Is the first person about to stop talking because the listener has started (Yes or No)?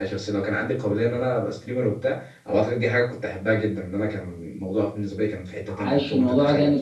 Yes